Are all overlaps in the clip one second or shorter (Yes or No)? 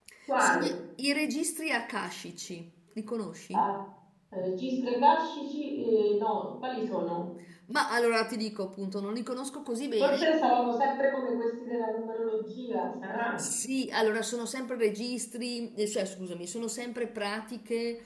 Yes